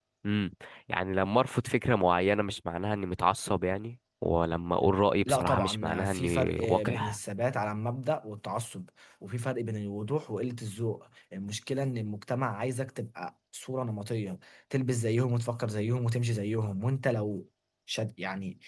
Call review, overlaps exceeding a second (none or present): present